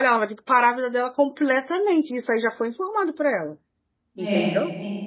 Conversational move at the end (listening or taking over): taking over